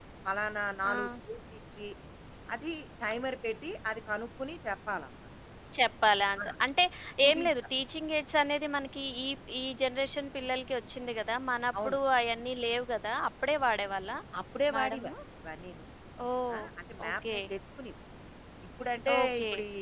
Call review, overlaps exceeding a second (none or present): none